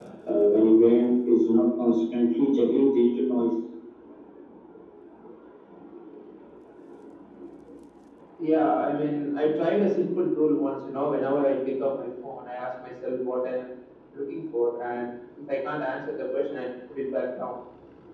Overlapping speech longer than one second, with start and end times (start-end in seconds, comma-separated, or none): none